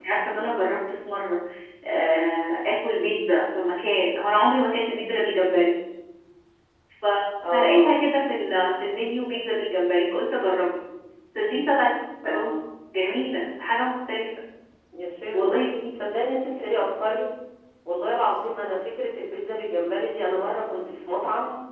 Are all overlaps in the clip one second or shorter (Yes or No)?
Yes